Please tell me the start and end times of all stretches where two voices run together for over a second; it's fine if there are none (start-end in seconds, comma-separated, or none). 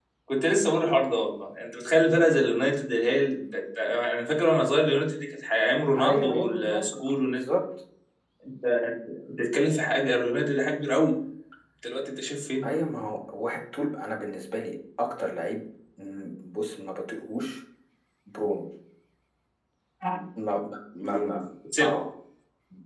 6.0-7.5